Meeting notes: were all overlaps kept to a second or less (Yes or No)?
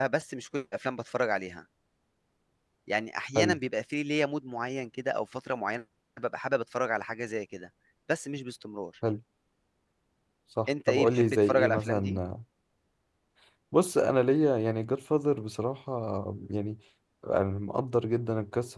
No